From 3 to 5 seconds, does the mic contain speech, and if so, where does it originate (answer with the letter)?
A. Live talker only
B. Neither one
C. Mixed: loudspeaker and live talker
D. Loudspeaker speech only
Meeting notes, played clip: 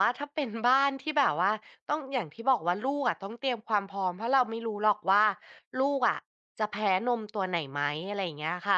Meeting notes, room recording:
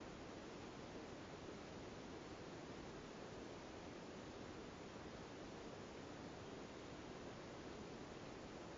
B